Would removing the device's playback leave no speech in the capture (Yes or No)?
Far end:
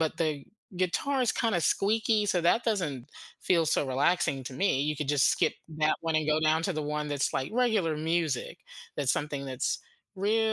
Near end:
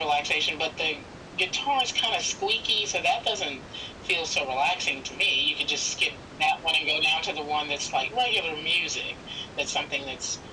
Yes